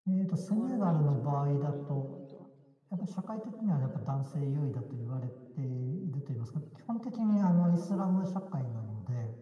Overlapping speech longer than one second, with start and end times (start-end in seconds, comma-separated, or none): 0.5-2.1